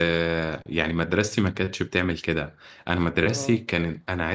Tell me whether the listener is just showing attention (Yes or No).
Yes